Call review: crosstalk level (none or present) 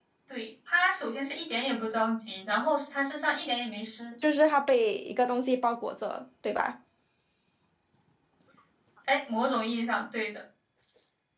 none